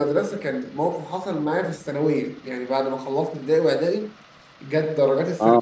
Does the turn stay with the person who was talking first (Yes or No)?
Yes